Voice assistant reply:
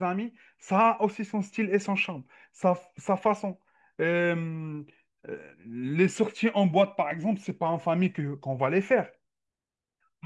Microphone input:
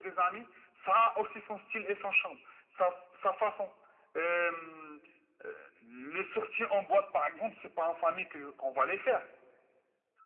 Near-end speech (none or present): none